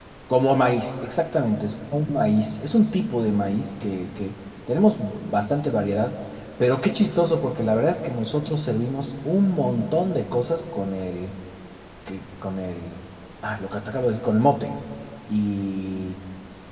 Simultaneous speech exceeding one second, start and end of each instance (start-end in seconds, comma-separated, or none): none